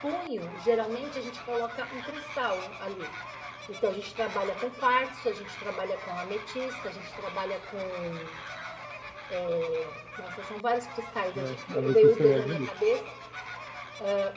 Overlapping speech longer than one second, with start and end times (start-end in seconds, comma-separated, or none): 11.3-12.7